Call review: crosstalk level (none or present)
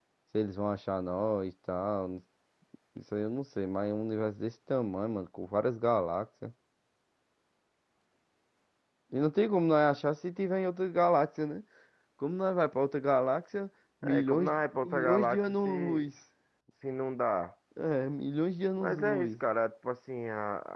present